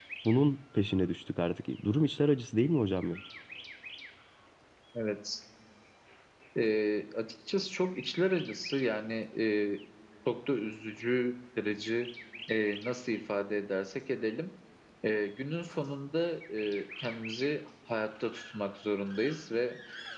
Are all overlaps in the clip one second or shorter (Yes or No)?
Yes